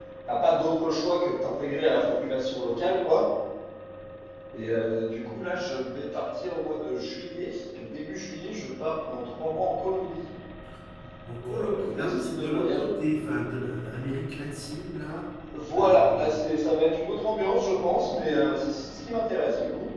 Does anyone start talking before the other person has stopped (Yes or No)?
Yes